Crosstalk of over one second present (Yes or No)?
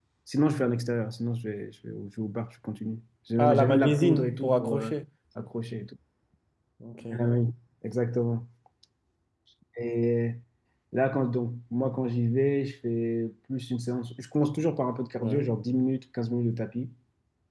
Yes